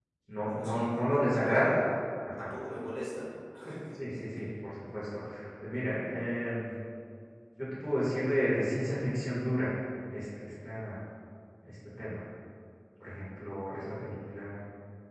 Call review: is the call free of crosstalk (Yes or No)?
No